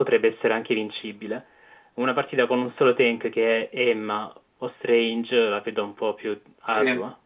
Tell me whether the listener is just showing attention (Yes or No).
No